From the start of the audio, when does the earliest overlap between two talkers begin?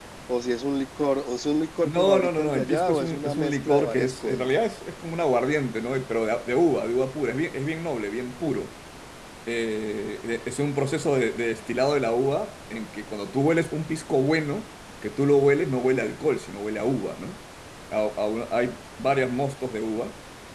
1.8 s

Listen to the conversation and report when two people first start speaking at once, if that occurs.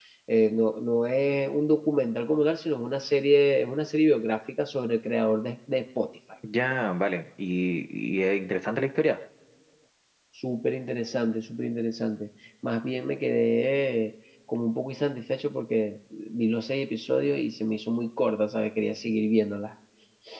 none

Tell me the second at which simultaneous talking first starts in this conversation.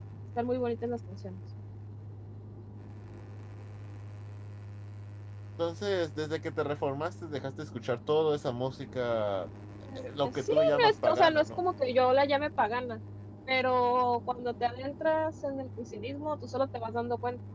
10.2 s

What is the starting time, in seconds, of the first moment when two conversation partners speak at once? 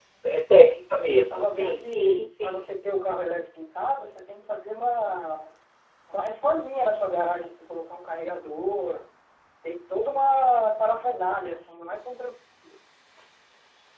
0.8 s

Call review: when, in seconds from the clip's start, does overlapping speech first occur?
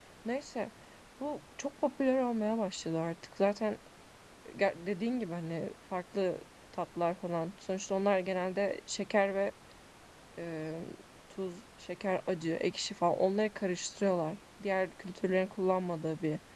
none

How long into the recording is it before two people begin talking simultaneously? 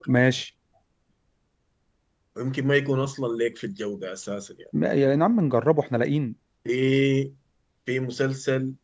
none

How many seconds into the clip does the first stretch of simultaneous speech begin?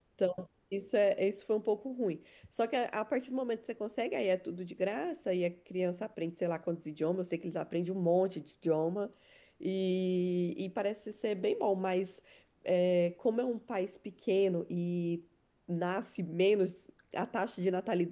none

